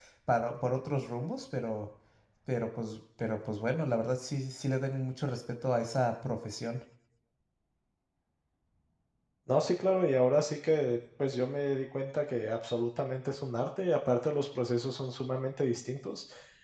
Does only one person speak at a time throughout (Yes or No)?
Yes